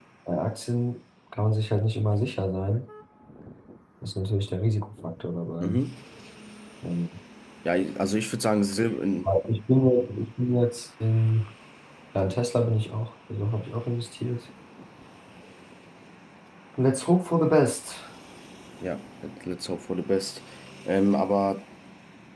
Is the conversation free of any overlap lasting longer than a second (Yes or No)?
Yes